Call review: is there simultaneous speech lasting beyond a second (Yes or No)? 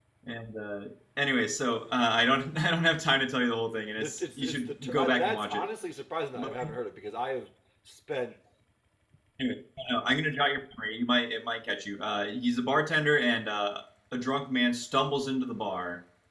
Yes